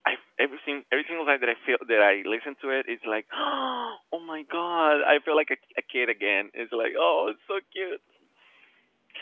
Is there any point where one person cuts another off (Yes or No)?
No